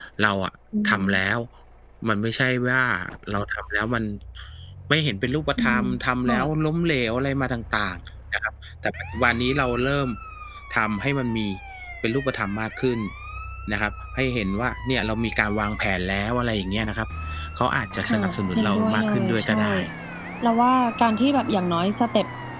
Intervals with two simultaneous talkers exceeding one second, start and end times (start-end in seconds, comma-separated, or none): 18.1-19.6